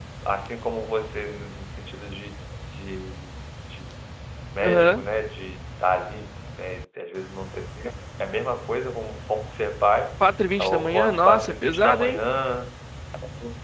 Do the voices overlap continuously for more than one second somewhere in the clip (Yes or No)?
Yes